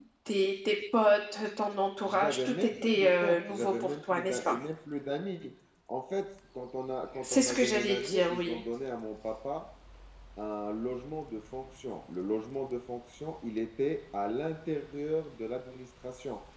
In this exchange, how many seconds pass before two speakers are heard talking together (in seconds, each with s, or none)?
2.1 s